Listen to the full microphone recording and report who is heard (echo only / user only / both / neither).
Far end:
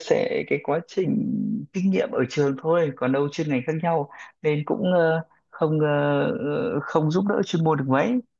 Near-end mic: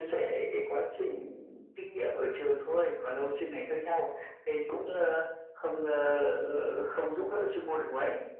echo only